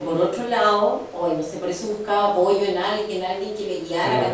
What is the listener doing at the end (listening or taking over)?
listening